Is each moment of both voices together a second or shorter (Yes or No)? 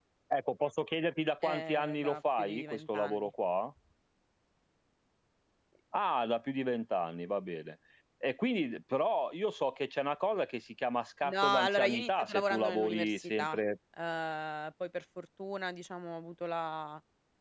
No